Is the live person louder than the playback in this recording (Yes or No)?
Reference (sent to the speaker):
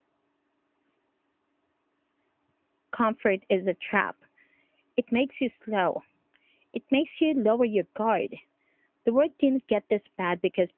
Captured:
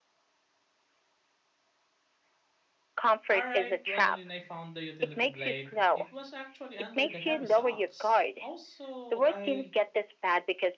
No